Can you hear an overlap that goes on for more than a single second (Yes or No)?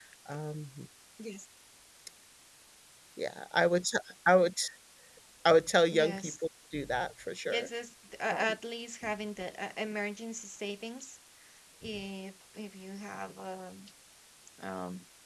No